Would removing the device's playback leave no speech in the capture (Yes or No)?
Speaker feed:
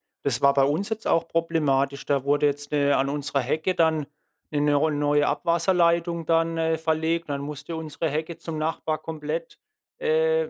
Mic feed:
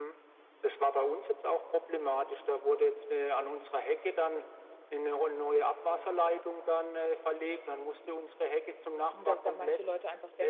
No